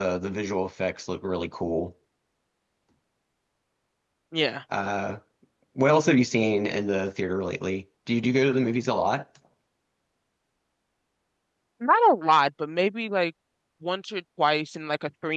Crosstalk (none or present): none